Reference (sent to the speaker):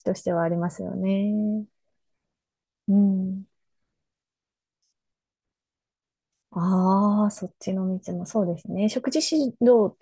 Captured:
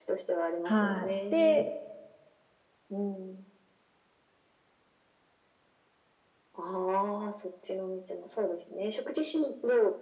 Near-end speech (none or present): present